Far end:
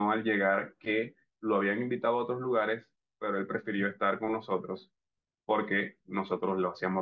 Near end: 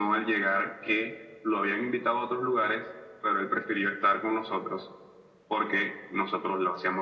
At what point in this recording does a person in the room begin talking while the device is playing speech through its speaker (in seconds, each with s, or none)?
none